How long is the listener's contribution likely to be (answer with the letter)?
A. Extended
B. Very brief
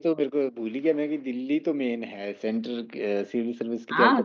A